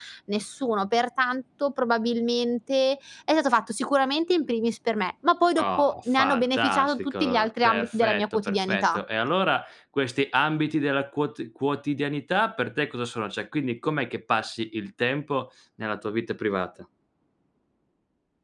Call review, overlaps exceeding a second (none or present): present